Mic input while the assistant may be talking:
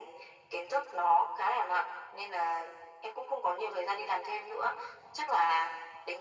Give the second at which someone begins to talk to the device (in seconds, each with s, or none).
none